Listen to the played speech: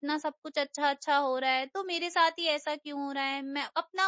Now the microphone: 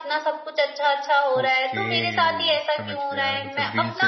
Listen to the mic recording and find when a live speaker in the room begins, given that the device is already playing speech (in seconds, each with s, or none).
1.4 s